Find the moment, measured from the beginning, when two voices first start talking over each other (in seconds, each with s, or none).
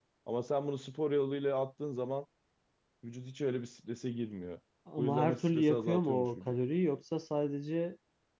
5.0 s